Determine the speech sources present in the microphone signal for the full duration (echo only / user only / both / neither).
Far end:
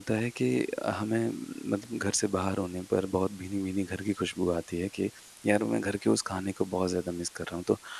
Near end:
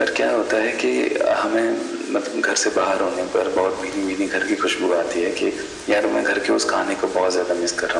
echo only